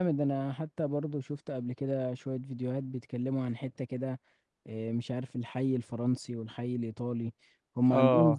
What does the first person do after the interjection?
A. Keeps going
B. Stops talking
A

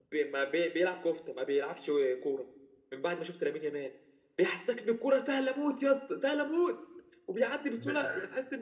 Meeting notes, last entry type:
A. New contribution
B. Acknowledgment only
B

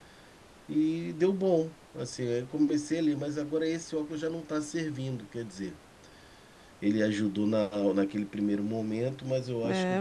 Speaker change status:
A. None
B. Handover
B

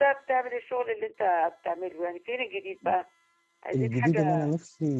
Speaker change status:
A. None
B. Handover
B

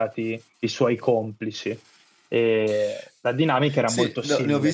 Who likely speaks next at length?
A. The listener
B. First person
A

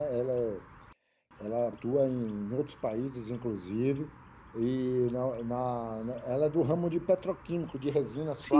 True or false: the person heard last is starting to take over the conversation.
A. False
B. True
B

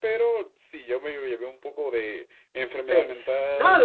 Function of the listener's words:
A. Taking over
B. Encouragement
A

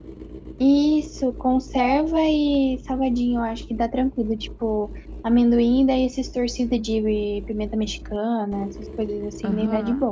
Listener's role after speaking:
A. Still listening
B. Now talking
B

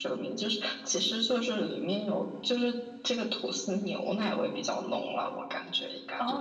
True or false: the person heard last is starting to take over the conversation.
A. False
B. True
B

